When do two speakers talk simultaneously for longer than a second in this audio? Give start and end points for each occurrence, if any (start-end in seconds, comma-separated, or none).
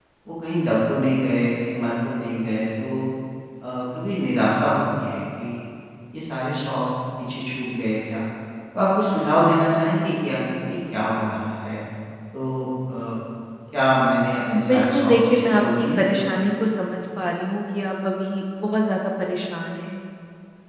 14.5-16.1